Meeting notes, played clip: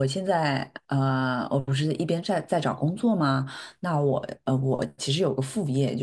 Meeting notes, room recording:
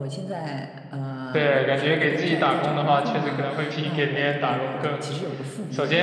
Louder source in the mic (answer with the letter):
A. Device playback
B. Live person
B